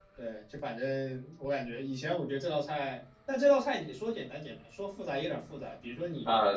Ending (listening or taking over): listening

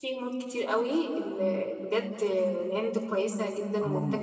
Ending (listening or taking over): taking over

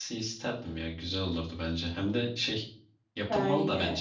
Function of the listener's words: listening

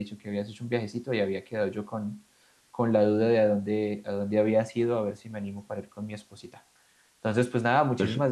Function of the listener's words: listening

